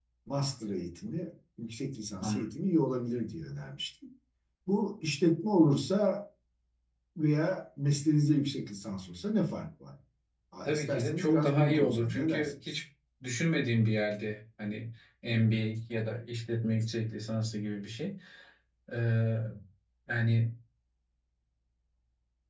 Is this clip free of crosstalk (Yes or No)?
No